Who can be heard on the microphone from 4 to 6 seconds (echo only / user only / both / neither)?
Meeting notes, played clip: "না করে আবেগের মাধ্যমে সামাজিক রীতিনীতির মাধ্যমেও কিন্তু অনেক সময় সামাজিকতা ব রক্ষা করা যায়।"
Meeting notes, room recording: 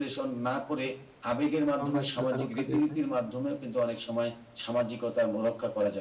echo only